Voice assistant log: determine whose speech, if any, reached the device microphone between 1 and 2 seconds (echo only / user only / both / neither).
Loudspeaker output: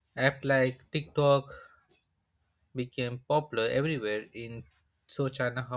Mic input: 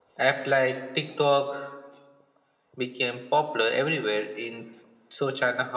echo only